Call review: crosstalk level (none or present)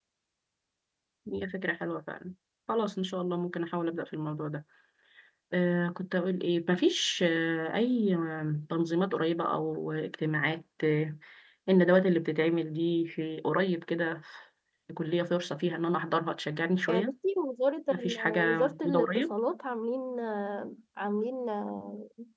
present